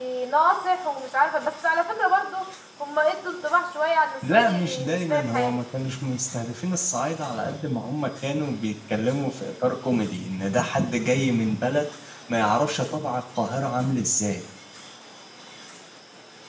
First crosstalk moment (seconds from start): 4.2 s

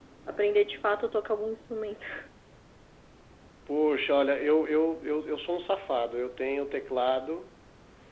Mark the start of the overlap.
none

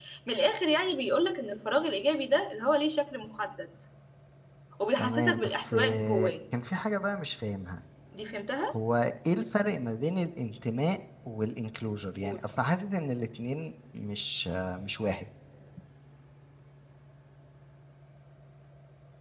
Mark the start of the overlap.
5.0 s

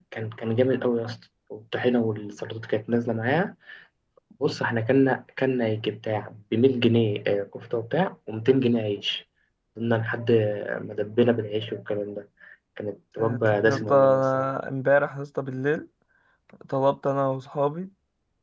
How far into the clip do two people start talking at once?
13.2 s

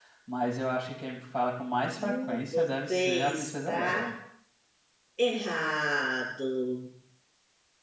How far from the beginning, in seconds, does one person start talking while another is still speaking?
1.9 s

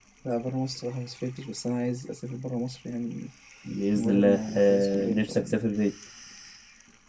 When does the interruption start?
4.0 s

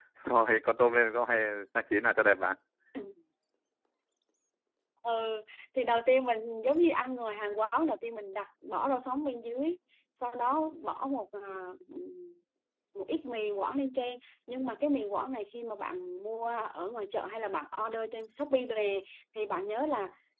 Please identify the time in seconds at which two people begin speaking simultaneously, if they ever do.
none

